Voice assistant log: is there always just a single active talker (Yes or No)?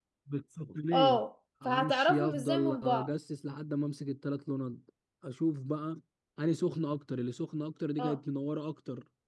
No